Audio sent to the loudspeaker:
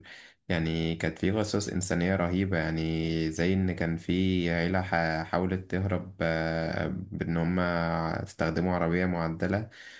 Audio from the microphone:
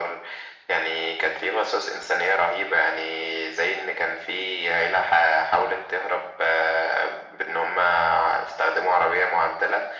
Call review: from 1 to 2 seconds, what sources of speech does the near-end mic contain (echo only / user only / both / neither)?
echo only